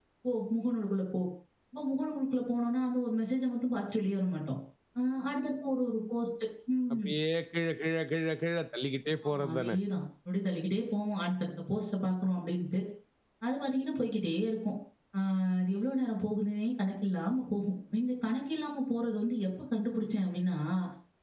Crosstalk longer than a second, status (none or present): none